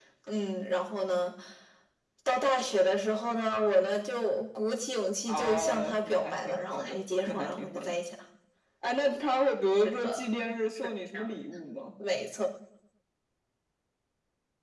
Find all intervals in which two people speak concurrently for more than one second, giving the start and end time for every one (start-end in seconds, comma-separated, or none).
5.3-7.9